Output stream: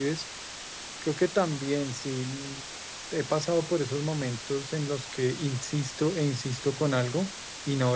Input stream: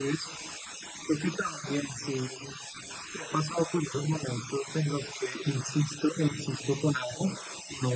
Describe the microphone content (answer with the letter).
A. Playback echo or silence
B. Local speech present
A